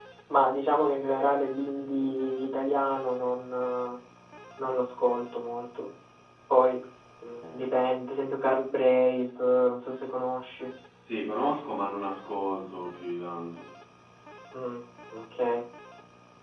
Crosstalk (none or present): none